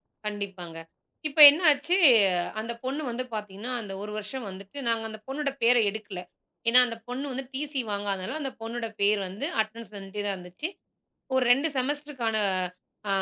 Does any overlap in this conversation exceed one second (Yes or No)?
No